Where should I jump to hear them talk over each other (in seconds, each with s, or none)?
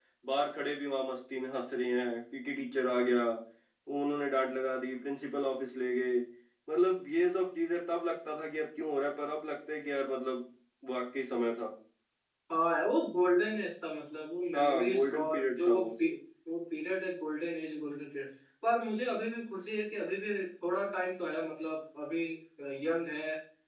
14.5 s